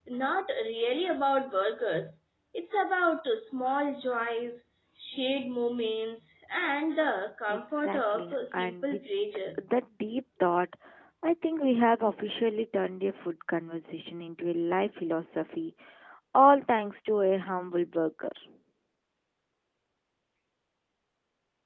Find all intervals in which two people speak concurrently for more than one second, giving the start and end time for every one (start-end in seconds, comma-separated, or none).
7.5-9.0